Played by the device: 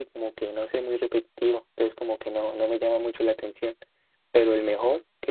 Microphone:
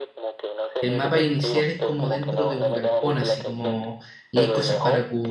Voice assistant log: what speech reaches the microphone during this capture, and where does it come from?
both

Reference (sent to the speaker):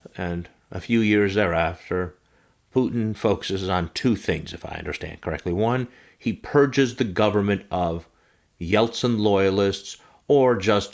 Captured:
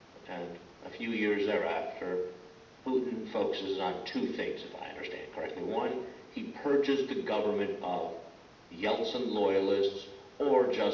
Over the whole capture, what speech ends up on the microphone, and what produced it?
echo only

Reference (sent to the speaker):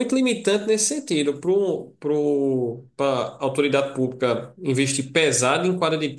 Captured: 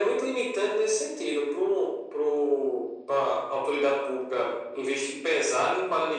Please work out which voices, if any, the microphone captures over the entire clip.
echo only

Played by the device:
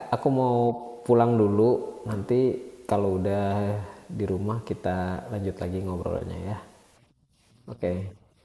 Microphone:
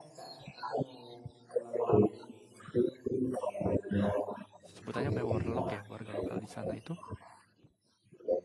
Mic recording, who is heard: both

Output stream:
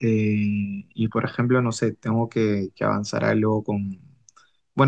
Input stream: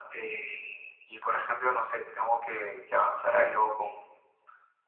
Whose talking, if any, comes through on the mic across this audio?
echo only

